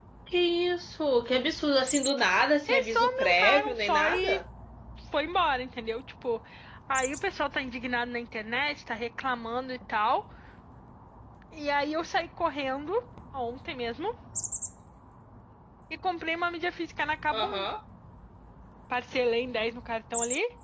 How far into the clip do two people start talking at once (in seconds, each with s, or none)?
2.7 s